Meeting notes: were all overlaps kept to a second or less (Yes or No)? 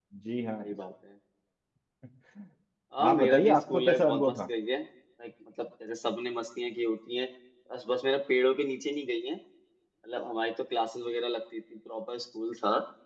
No